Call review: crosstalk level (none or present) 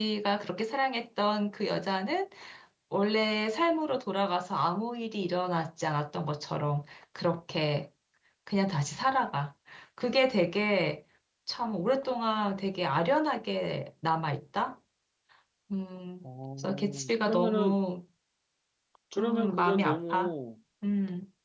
present